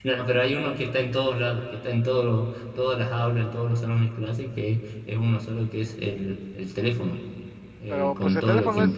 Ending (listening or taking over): taking over